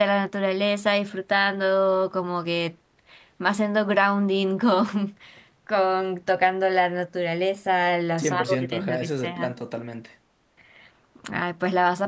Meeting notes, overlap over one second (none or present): present